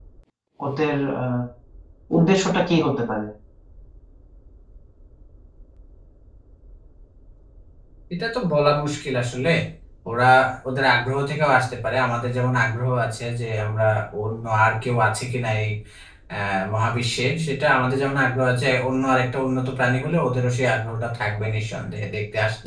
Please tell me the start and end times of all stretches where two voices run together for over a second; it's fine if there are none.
none

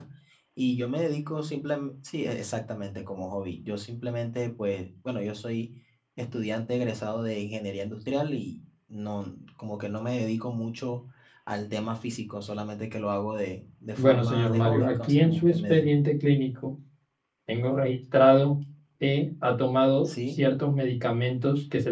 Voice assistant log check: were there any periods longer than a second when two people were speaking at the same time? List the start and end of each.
14.0-15.9

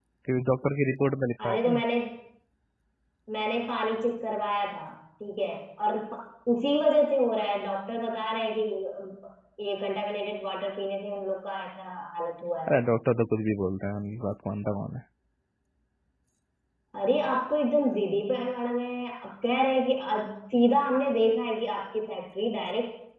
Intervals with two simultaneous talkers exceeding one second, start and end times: none

